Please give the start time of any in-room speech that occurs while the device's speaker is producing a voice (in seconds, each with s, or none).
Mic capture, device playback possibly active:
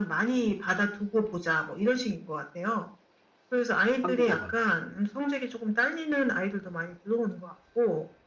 4.0 s